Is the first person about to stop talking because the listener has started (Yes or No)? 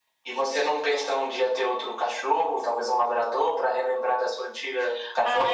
Yes